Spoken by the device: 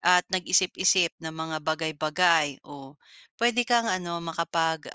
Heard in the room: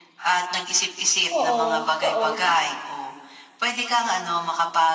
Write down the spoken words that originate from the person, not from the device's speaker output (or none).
Oo, totoo.